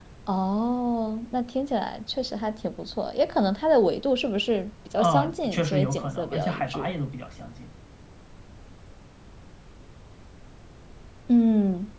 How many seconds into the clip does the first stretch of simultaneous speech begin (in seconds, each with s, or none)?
5.0 s